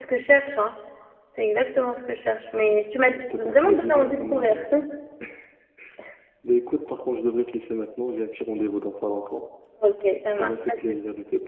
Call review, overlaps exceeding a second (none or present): present